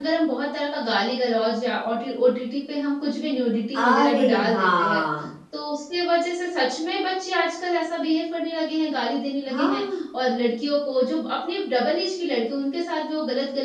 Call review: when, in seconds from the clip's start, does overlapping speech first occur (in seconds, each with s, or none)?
3.8 s